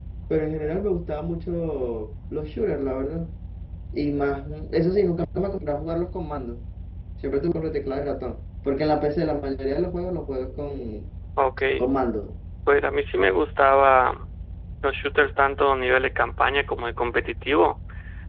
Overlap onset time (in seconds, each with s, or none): none